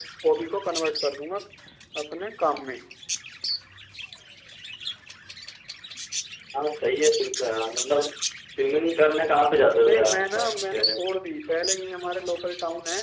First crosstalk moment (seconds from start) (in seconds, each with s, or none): 9.7 s